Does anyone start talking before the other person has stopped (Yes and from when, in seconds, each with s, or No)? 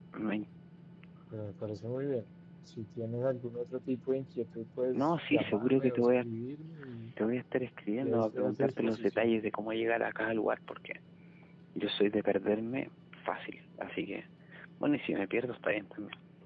Yes, from 4.9 s